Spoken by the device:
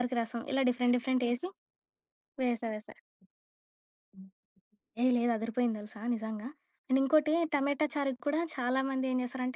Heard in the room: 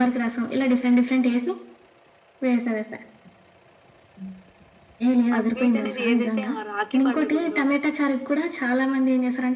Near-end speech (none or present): present